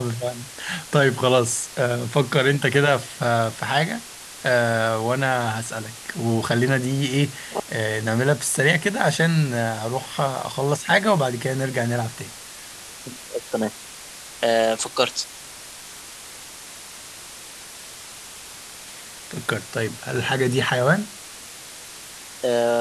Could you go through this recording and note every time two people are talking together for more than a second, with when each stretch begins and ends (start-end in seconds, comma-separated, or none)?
none